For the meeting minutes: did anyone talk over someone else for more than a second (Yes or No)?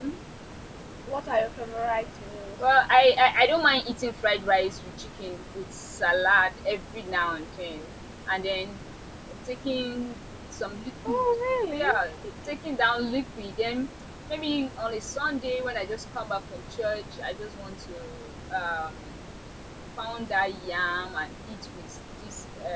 No